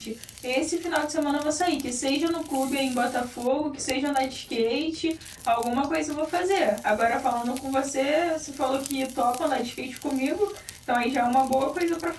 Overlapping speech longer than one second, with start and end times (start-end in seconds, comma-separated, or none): none